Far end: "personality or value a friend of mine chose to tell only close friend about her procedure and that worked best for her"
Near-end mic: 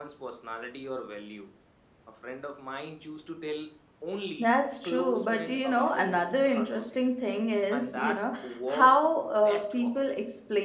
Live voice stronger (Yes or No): Yes